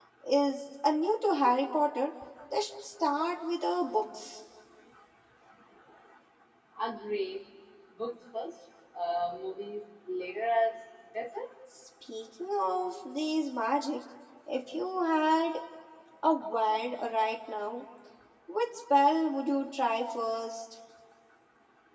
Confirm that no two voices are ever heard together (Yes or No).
Yes